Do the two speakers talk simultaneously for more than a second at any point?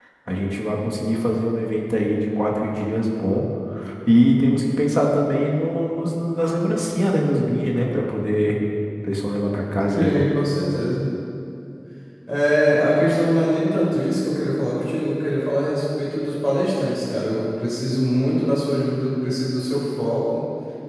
No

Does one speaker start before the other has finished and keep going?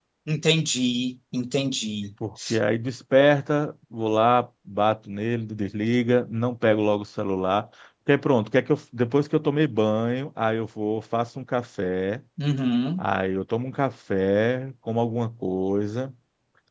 No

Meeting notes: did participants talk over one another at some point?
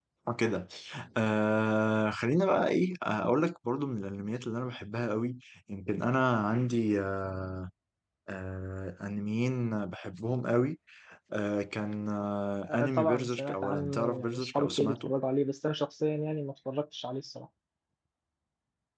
Yes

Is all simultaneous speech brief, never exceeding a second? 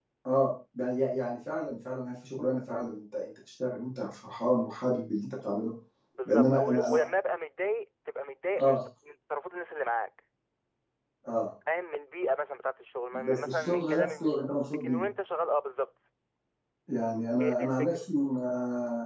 No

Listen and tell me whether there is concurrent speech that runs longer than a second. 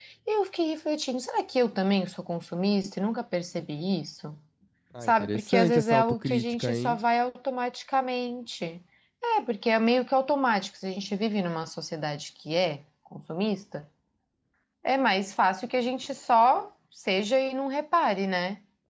Yes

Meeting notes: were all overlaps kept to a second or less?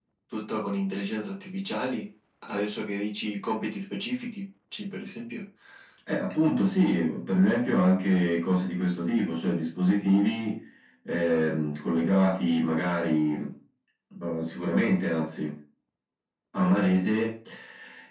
Yes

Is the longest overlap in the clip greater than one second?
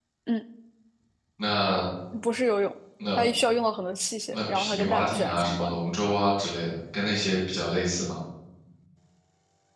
Yes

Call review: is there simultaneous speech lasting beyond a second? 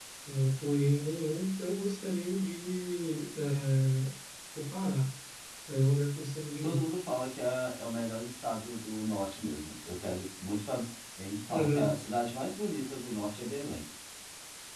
No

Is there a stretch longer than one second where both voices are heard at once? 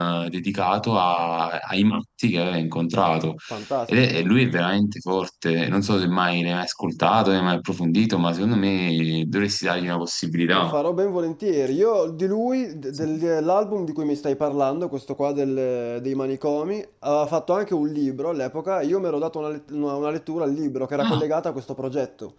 No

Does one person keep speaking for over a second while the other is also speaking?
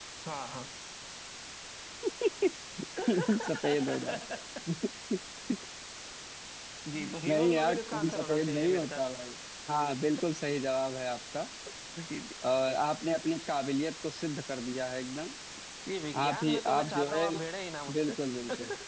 Yes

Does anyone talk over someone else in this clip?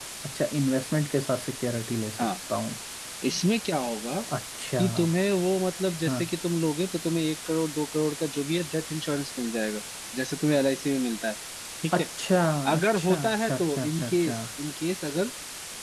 Yes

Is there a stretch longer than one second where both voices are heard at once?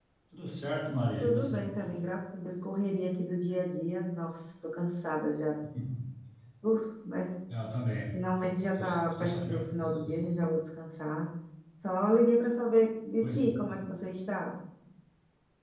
Yes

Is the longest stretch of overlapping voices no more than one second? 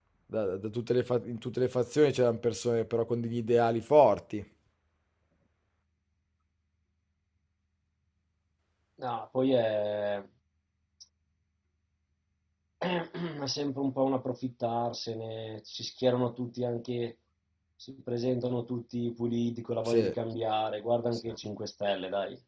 Yes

